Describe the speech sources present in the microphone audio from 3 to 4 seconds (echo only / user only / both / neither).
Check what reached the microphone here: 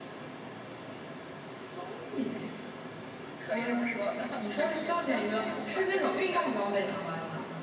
echo only